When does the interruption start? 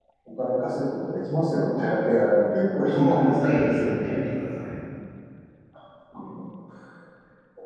2.9 s

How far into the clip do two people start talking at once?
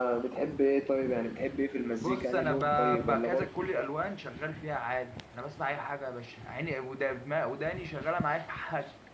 2.0 s

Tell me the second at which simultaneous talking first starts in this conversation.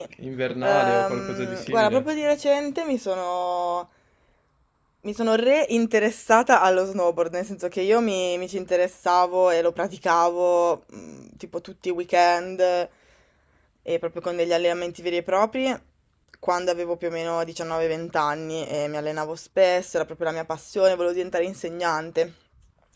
0.6 s

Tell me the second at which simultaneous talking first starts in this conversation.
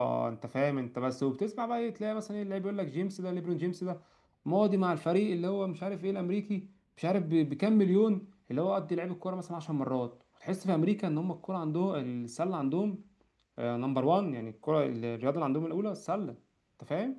none

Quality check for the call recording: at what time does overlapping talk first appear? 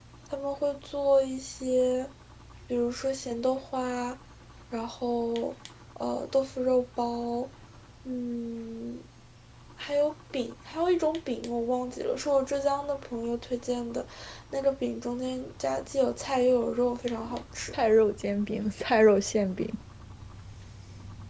none

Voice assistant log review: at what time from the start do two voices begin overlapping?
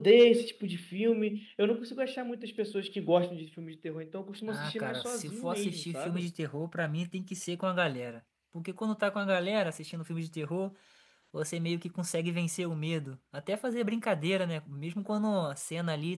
4.5 s

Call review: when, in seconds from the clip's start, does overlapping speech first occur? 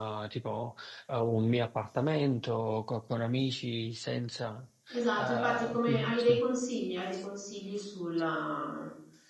5.2 s

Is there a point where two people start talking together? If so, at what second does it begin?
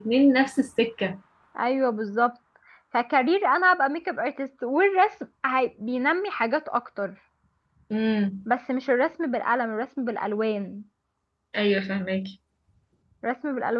none

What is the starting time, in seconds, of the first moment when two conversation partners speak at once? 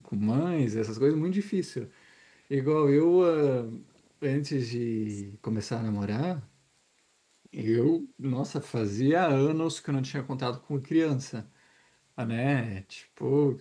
none

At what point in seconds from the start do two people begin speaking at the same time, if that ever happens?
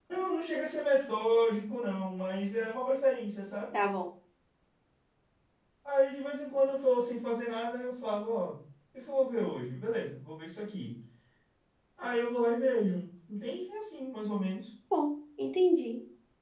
none

